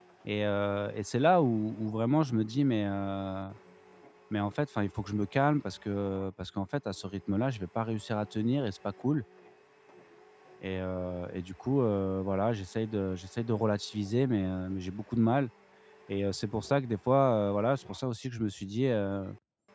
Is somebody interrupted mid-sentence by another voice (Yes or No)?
No